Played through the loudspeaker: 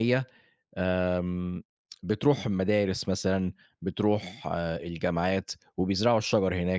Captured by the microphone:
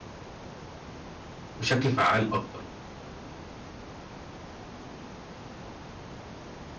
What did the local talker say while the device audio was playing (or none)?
بشكل فعّال أكتر،